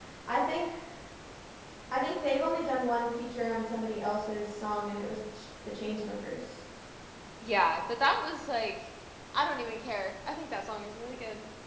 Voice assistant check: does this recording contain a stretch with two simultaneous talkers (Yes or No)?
No